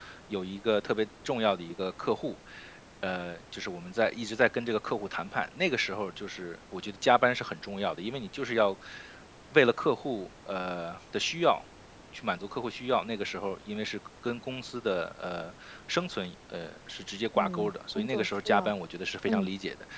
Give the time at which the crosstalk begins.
17.4 s

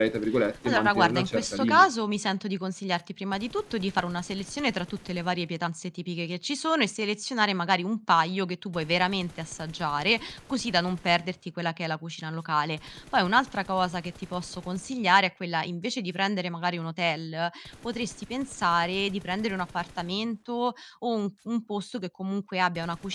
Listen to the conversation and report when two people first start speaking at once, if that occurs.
0.7 s

